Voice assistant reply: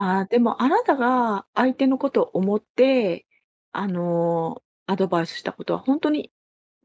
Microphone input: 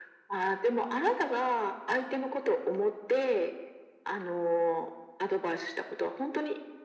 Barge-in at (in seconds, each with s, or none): none